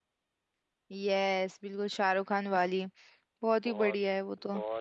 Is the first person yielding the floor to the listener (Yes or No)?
Yes